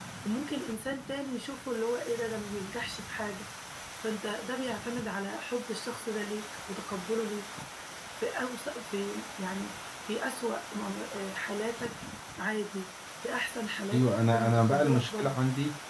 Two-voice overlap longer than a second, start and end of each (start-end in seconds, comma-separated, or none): 13.9-15.4